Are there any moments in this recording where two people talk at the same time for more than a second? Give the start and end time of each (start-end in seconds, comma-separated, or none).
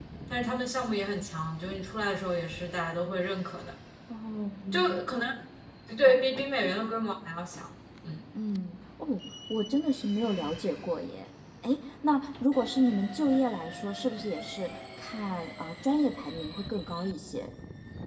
none